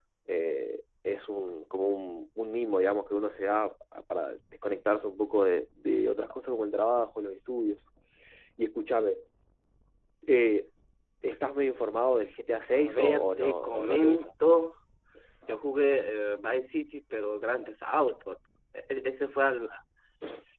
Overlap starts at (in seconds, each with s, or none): 12.7 s